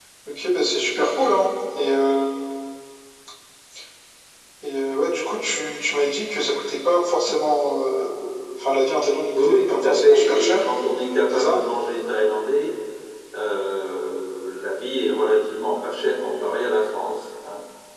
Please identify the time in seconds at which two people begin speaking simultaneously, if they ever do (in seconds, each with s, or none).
9.3 s